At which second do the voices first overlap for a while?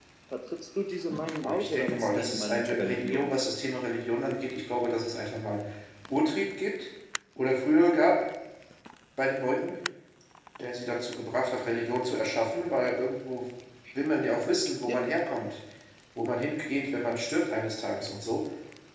1.4 s

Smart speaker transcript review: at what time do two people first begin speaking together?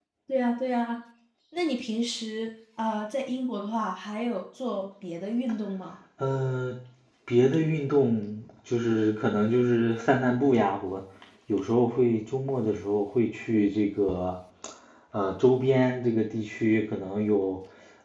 none

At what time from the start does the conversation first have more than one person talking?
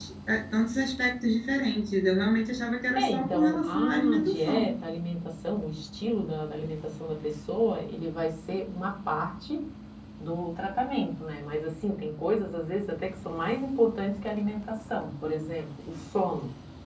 3.0 s

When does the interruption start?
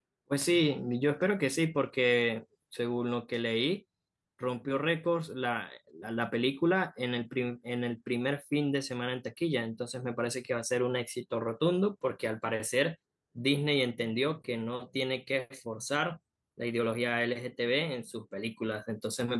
none

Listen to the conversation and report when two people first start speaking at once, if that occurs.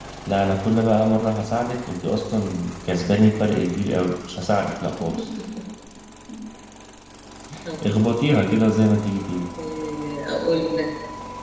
none

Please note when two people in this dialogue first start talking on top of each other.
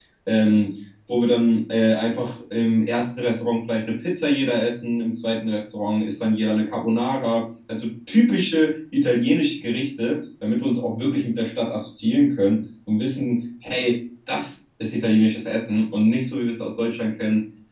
none

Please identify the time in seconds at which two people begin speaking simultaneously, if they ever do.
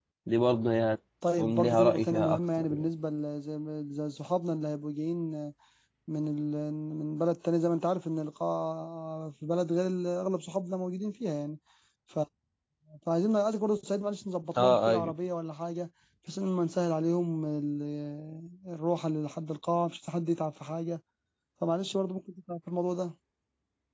1.4 s

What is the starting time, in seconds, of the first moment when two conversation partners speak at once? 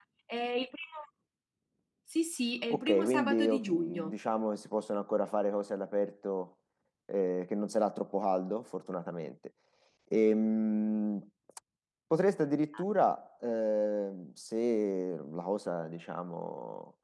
2.7 s

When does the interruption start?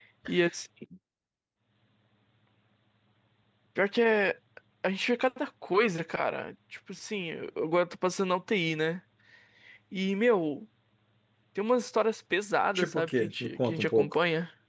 12.8 s

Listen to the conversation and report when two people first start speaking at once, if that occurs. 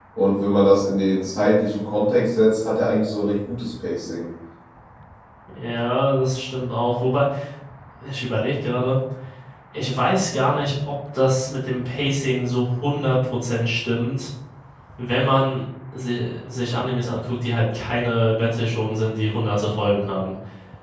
none

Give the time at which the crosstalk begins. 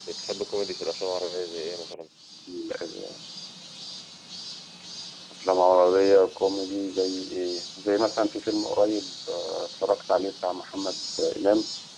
none

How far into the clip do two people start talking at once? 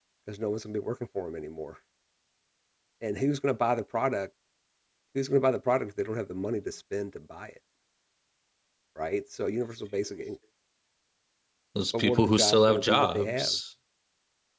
12.0 s

